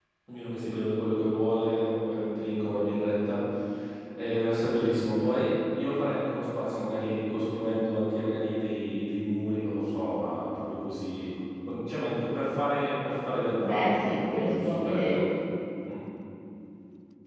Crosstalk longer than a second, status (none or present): present